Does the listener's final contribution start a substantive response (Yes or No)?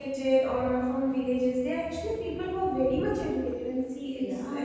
No